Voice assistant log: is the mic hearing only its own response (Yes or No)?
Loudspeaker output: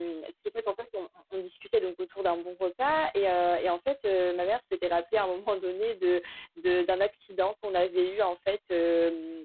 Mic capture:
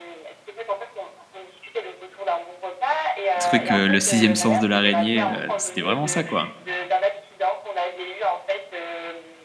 No